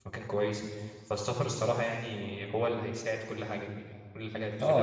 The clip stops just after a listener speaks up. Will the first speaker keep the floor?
No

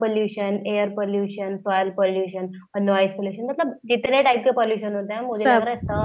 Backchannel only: Yes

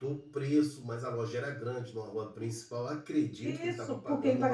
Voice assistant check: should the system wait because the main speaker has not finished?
No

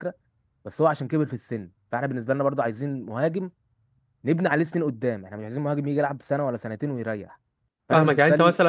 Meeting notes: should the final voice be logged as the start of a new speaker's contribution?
Yes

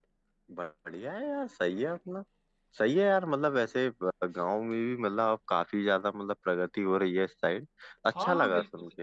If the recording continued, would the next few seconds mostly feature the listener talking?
Yes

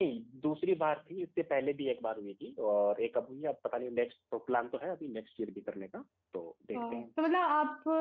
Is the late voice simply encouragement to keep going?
No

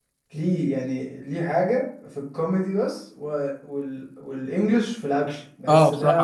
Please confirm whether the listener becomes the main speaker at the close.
Yes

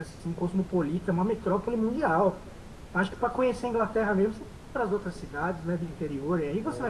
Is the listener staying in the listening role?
No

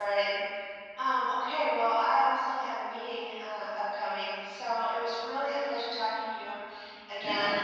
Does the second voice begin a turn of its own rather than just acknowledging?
No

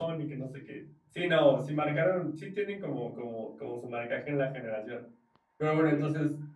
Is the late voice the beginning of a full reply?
No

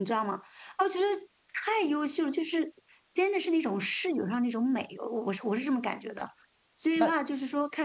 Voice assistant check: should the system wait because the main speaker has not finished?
Yes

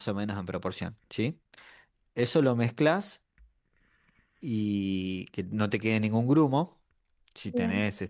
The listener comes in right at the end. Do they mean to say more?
No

